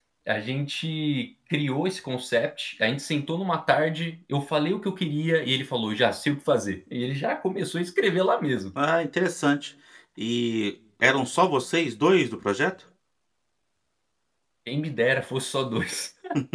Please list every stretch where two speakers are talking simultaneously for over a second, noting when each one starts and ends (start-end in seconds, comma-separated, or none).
none